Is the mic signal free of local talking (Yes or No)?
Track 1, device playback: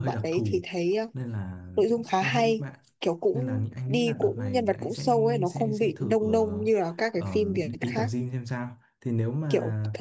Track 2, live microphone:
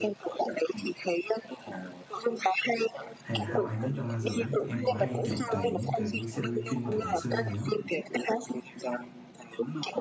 No